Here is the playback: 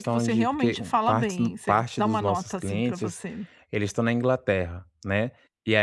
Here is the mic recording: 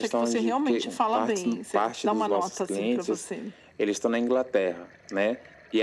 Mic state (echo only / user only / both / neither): echo only